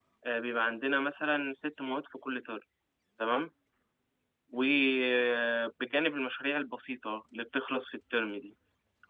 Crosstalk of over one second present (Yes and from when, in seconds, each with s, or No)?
No